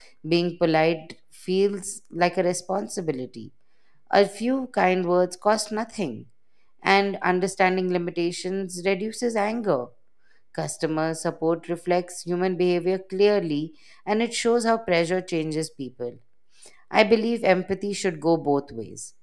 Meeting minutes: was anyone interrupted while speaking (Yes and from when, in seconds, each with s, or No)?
No